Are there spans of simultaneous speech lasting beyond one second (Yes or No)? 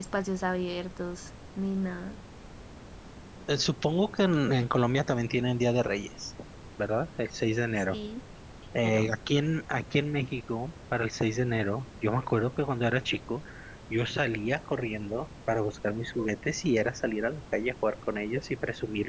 No